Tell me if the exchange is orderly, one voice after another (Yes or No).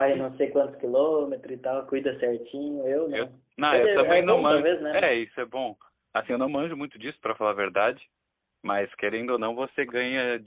No